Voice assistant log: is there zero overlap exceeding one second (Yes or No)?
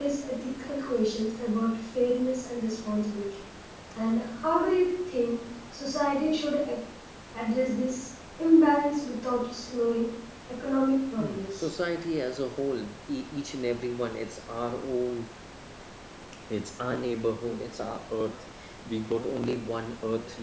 Yes